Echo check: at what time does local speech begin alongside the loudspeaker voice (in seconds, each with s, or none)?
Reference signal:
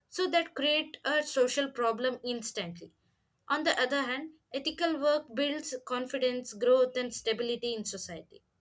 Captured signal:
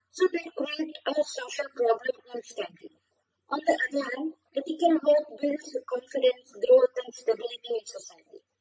none